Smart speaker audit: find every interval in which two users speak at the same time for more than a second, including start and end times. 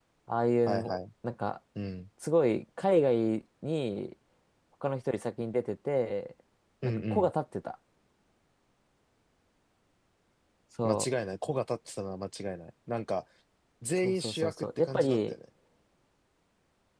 14.0-15.3

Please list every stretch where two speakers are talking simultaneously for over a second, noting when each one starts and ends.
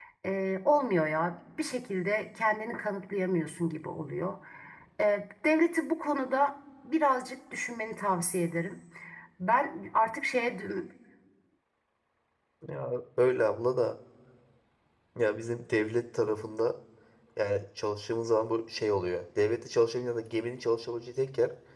none

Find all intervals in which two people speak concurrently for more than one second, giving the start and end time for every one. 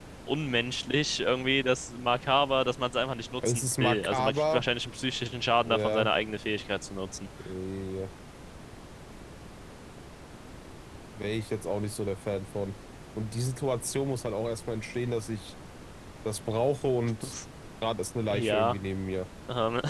3.4-4.6

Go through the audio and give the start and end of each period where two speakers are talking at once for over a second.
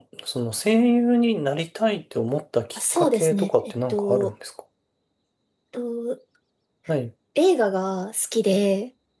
2.8-4.3

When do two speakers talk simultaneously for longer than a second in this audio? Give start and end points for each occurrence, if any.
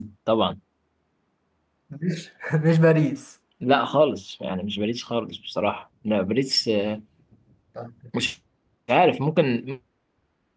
none

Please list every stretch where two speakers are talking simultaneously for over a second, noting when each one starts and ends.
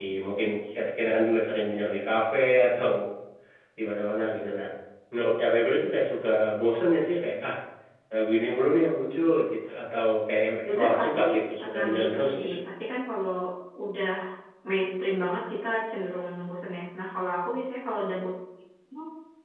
10.6-12.5

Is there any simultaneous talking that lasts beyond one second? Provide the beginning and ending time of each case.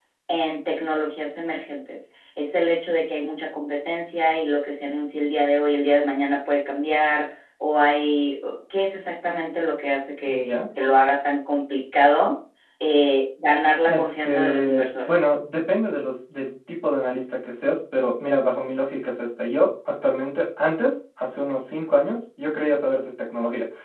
13.9-15.1

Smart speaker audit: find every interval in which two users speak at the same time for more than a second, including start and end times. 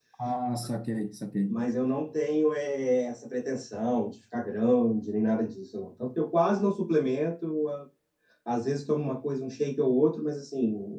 none

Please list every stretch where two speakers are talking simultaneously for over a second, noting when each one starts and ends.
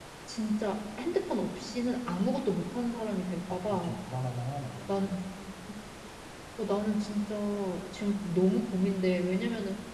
none

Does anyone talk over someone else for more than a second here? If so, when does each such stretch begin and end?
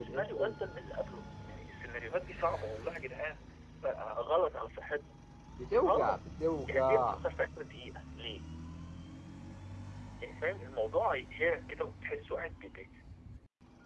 none

